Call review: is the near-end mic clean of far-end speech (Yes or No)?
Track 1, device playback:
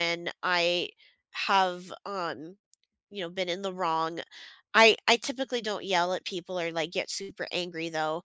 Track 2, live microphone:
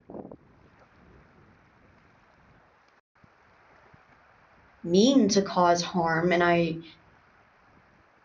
Yes